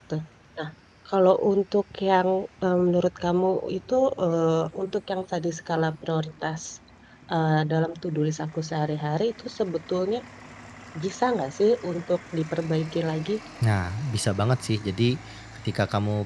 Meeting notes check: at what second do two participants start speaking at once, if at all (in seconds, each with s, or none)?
none